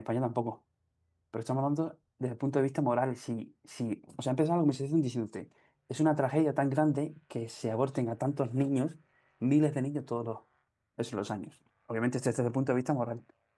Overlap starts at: none

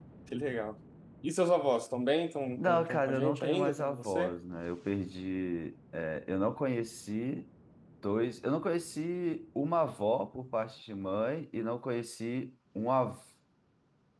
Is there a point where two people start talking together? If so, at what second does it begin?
2.6 s

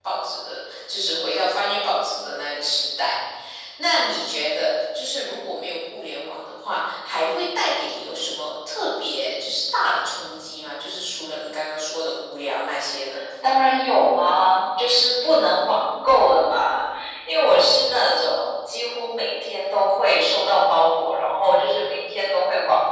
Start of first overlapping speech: none

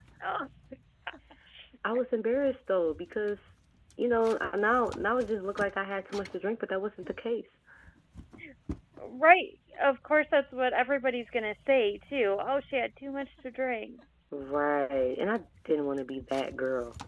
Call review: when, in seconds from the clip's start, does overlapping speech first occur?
none

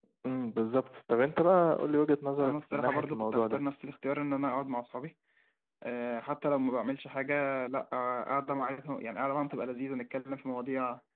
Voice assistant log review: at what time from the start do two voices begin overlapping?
2.4 s

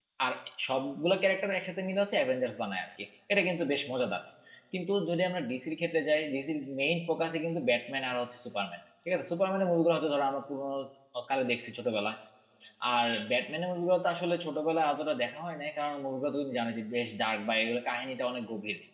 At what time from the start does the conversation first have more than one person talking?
none

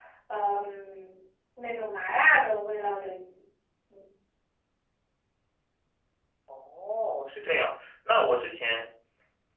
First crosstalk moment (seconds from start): none

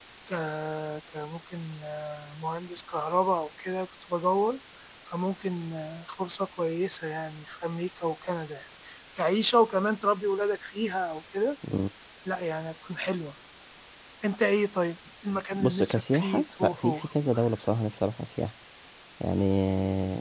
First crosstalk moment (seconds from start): 15.5 s

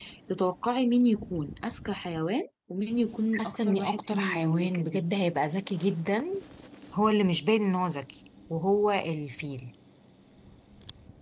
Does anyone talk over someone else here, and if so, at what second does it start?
3.3 s

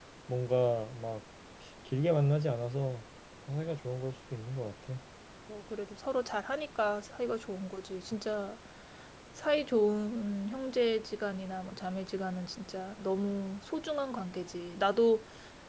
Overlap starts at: none

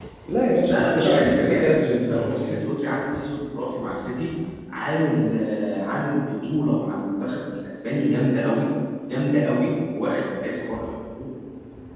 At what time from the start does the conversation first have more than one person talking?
0.7 s

